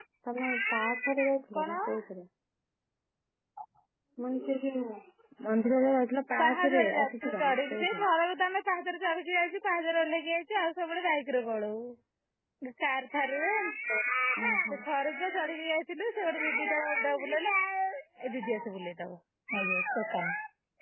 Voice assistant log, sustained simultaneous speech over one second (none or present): present